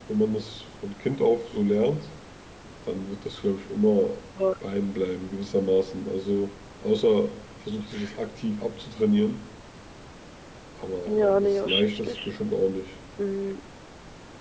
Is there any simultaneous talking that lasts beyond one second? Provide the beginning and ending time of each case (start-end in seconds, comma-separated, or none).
11.1-12.3